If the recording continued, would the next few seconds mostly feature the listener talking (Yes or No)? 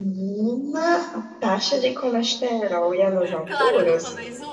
Yes